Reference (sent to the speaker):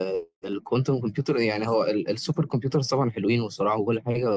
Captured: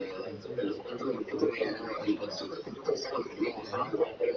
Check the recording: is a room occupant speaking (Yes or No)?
Yes